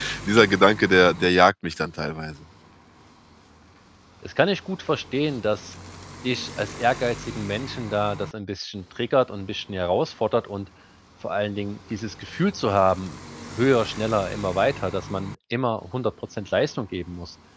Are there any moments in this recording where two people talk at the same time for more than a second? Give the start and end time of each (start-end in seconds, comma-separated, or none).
none